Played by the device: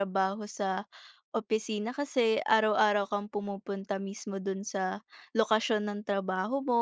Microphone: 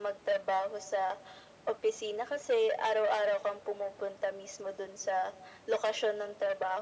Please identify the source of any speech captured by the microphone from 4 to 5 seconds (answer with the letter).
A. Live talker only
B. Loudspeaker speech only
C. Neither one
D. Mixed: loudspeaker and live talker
B